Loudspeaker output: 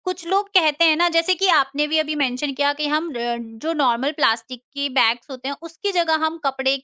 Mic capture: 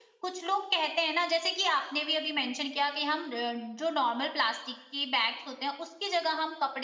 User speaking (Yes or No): No